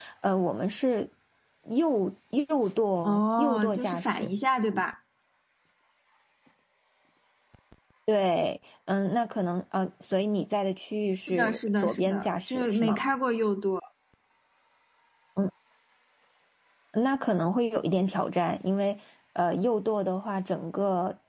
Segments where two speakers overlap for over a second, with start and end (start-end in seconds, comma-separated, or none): 3.0-4.3, 11.3-13.0